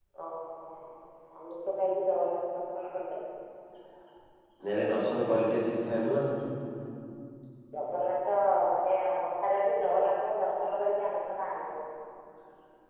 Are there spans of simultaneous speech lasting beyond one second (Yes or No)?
No